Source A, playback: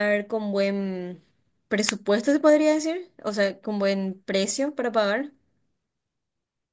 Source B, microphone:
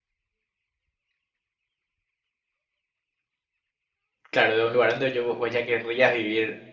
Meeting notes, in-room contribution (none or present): present